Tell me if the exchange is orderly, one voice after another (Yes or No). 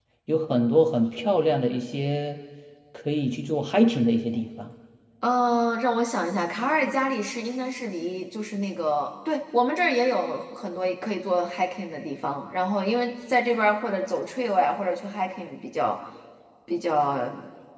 Yes